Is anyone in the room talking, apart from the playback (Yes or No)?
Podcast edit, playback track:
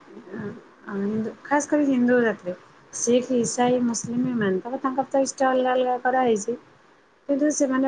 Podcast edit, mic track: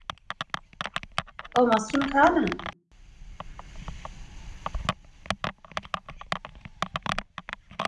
Yes